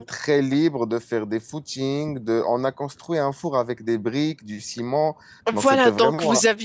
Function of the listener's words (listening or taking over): taking over